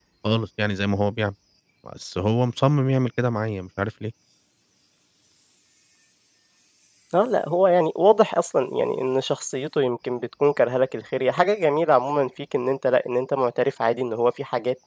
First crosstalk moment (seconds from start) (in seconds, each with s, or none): none